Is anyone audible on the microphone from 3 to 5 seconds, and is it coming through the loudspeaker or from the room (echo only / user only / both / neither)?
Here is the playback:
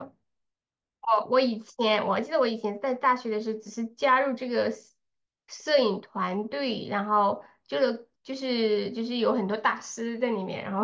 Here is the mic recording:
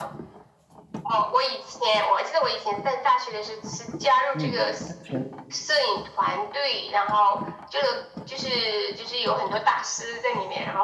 both